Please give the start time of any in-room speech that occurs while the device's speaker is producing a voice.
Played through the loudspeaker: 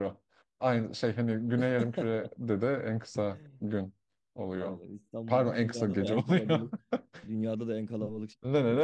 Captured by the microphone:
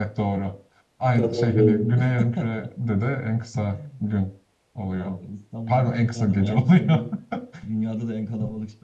1.1 s

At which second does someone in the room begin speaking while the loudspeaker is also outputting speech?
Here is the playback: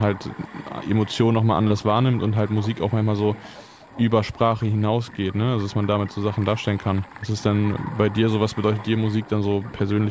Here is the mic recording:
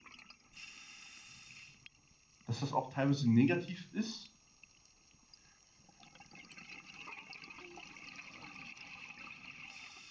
2.5 s

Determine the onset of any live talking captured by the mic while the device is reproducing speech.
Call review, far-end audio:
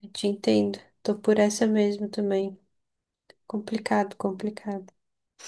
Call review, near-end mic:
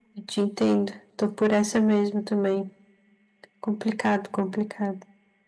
none

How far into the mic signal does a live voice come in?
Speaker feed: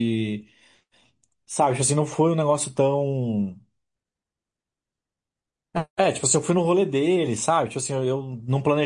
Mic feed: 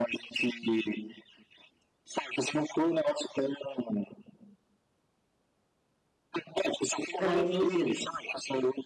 7.2 s

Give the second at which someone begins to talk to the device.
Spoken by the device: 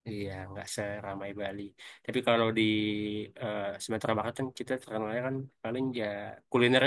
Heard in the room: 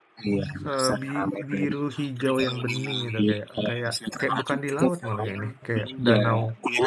0.7 s

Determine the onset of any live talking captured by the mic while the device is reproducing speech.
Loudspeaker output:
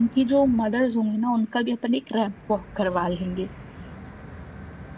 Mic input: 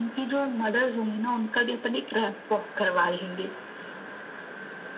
none

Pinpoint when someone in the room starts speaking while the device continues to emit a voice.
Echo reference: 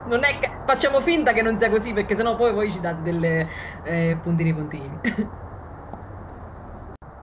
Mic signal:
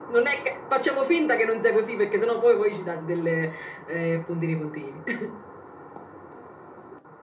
none

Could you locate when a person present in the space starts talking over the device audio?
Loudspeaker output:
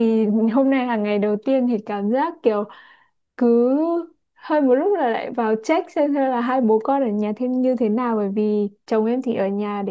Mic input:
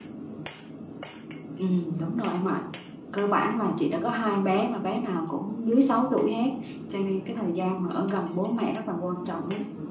1.6 s

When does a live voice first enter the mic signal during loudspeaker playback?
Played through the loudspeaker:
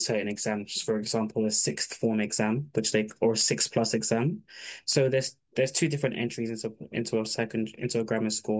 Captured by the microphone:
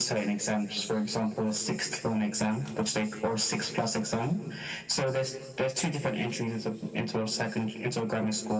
none

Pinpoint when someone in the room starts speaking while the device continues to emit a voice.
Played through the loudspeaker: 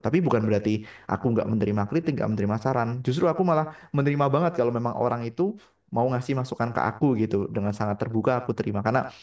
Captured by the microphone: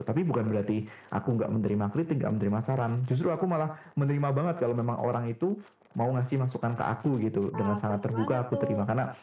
7.5 s

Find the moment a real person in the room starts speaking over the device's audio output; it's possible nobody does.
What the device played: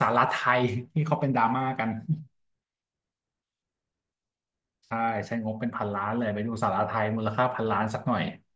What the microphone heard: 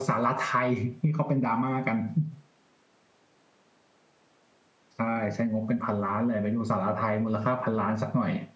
none

